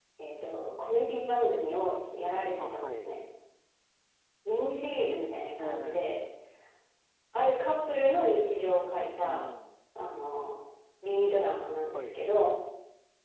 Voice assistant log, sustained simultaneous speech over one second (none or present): none